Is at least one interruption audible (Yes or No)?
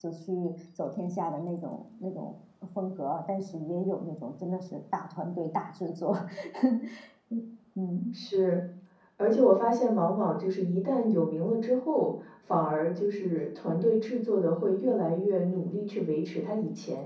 No